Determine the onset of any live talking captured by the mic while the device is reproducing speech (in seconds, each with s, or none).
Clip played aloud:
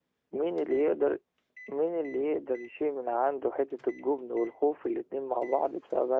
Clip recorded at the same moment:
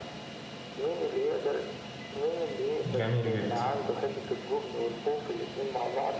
2.8 s